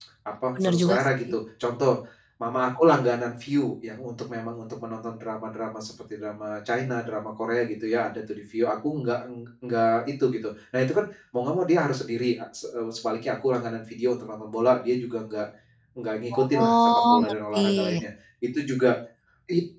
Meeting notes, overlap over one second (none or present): present